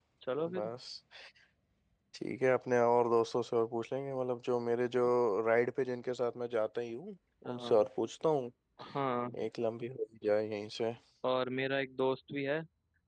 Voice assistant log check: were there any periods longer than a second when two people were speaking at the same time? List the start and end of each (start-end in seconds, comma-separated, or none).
none